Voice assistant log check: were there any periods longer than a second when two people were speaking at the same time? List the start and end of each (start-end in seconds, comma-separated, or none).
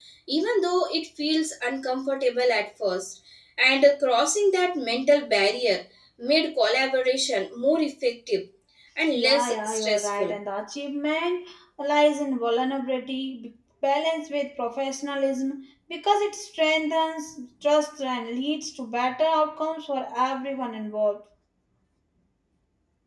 9.2-10.4